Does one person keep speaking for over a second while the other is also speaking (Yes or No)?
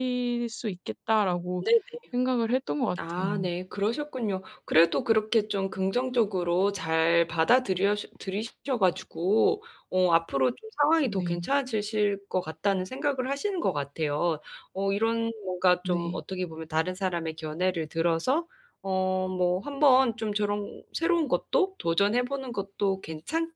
No